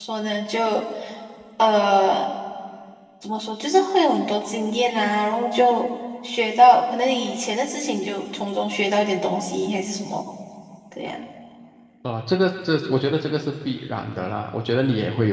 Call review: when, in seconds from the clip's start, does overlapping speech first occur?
none

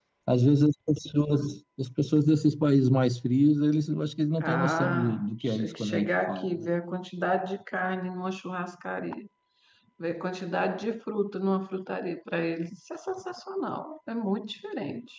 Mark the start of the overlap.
4.4 s

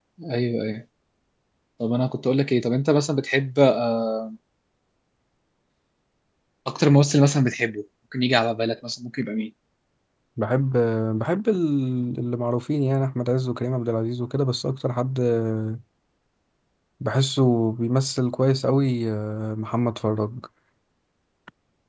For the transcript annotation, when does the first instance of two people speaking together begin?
none

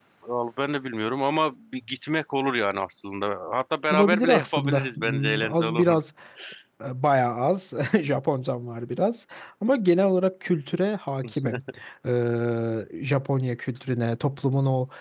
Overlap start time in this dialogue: 3.9 s

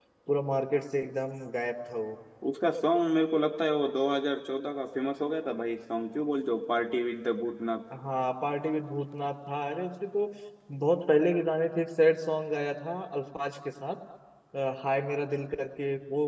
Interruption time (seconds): none

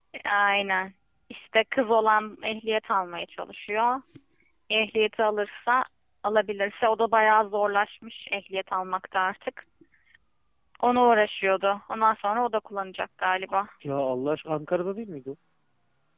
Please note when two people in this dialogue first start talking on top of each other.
none

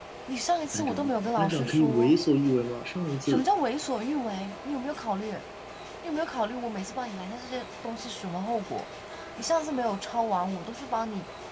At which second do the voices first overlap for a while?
0.7 s

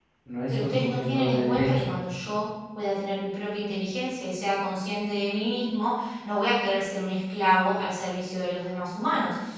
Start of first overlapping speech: 0.5 s

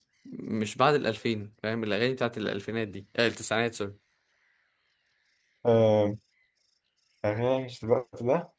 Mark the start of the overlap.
none

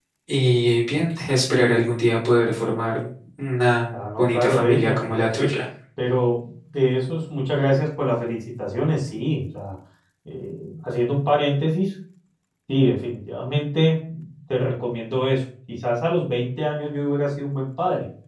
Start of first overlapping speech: 3.9 s

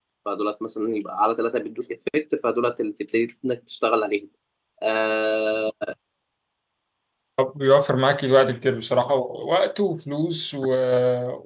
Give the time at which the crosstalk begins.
none

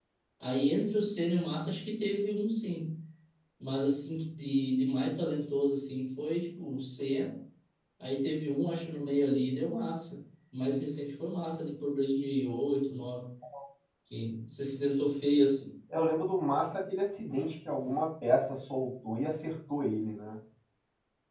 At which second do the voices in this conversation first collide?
none

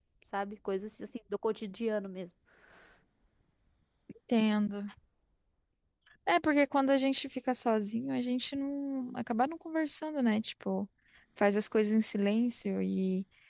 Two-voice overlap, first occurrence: none

